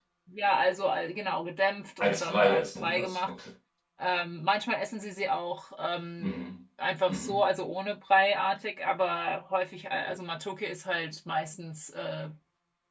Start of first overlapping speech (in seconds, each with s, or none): 2.0 s